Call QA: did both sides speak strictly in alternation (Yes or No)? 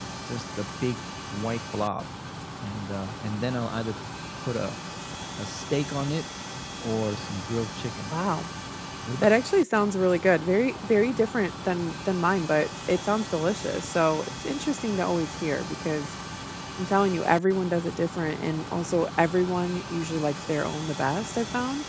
Yes